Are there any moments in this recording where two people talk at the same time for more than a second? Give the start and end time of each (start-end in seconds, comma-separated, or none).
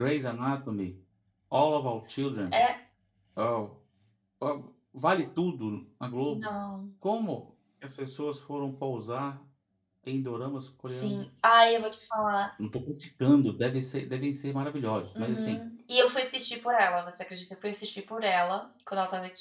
none